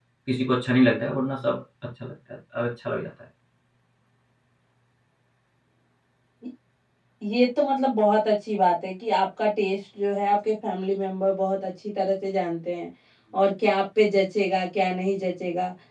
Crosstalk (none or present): none